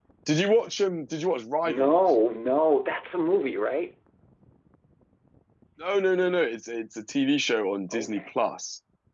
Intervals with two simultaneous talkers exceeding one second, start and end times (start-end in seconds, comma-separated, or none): none